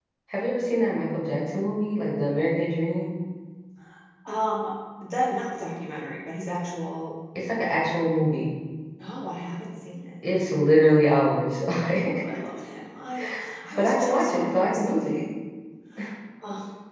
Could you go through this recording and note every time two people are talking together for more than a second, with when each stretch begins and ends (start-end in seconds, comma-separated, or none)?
13.7-15.2